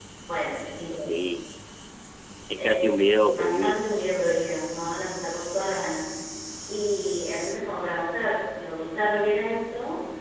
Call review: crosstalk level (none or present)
present